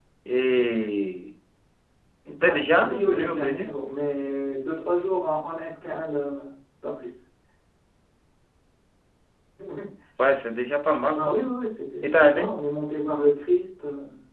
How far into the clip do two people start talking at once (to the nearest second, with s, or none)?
2 s